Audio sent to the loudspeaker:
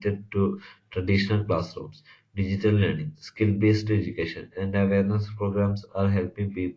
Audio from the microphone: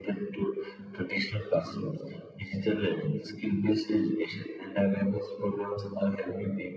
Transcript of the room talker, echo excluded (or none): none